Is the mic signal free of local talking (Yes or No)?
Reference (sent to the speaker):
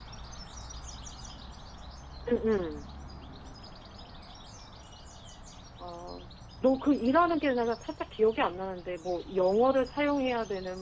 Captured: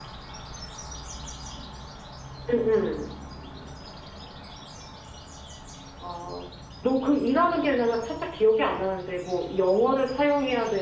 Yes